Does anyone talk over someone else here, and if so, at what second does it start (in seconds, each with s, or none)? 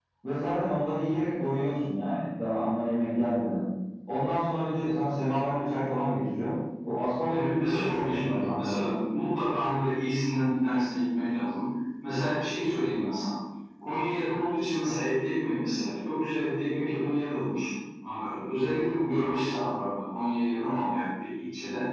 7.3 s